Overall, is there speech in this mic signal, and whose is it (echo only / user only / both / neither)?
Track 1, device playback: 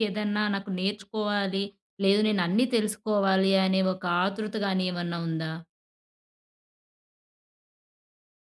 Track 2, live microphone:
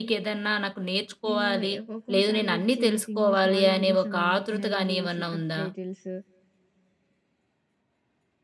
both